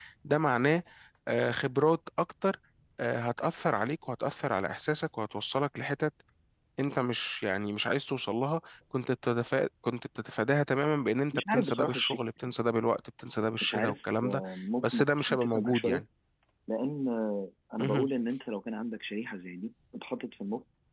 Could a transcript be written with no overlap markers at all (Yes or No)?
No